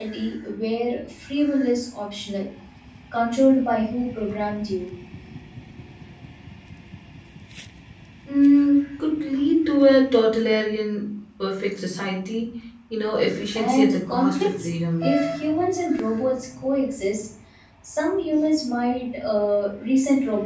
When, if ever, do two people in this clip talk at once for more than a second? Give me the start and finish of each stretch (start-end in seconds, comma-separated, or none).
13.5-15.2